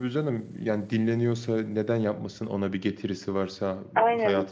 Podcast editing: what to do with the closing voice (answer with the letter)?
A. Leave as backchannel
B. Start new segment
A